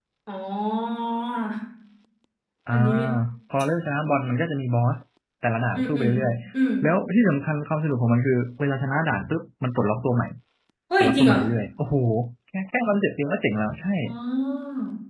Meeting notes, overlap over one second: none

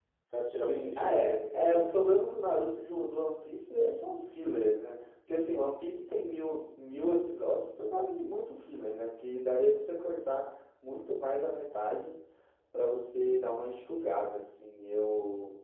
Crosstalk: present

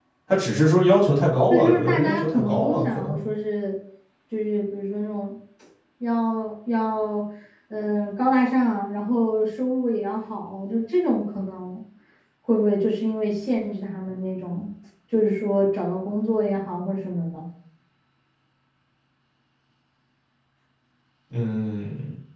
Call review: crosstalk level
present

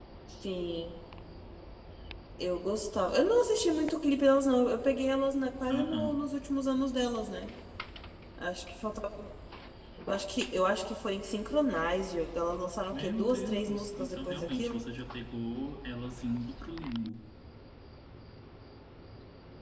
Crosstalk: present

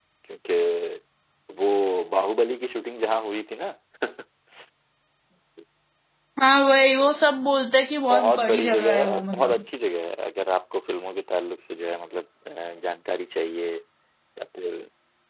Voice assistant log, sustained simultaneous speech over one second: present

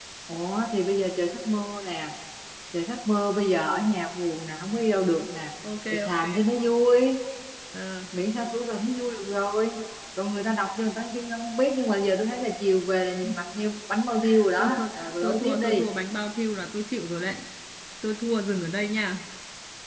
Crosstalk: present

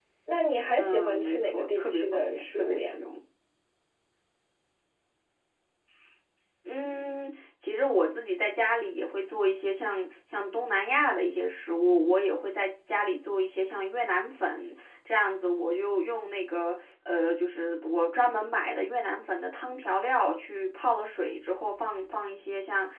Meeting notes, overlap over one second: present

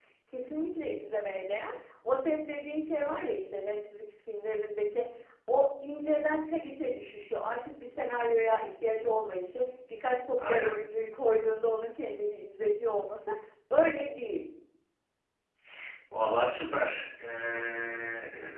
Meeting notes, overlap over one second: none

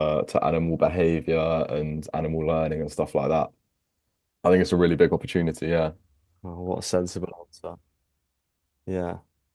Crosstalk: none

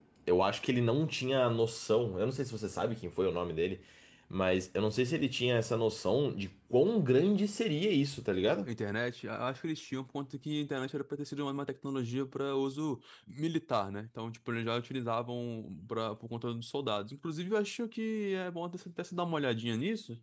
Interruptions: none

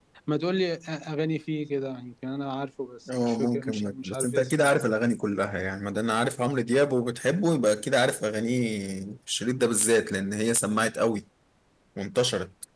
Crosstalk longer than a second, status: present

